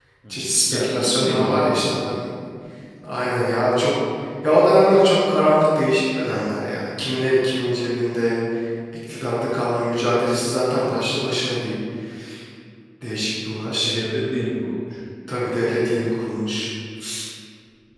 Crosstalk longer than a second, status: present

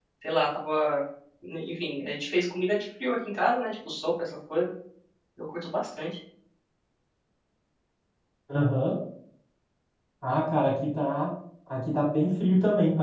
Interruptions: none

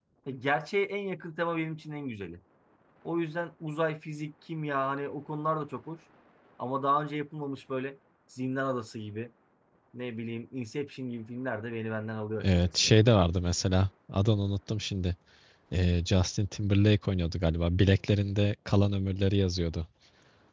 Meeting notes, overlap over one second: none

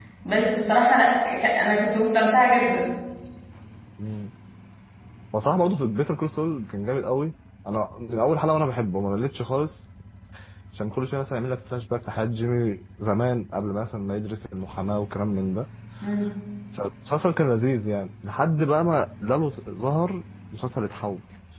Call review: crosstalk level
none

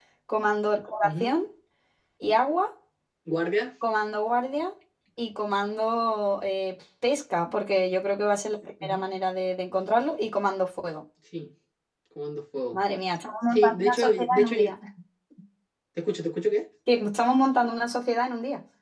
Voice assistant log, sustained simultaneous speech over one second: present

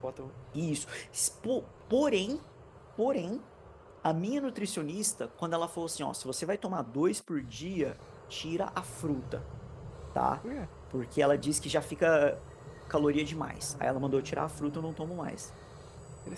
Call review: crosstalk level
present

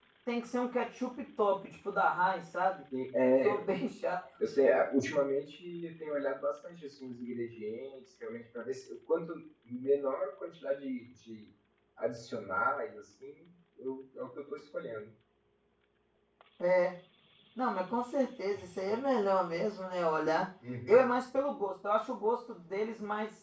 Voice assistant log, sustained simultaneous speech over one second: none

